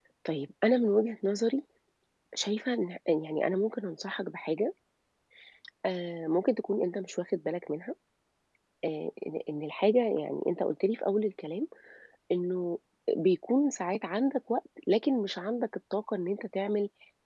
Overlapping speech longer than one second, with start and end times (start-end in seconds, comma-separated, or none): none